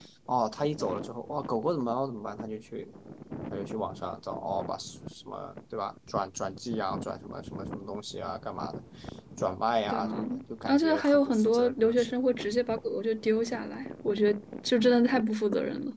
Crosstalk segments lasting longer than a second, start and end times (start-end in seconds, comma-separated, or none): 10.7-12.1